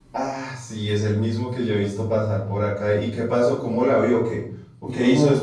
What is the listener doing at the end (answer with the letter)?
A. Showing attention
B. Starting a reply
B